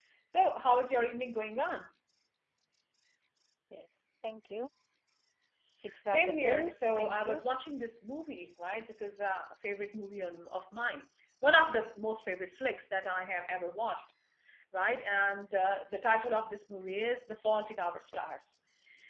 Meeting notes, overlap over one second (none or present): present